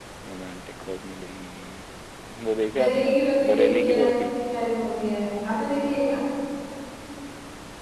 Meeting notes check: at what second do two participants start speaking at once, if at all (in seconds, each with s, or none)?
2.7 s